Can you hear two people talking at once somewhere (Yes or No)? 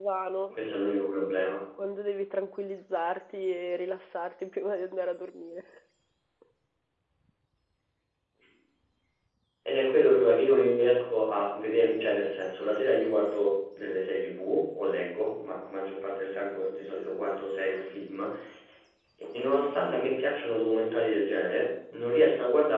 No